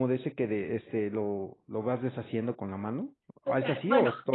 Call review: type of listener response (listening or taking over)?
taking over